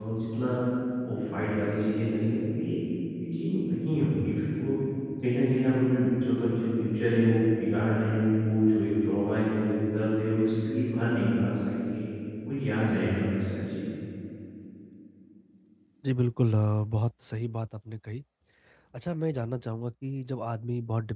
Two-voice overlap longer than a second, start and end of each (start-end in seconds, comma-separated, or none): none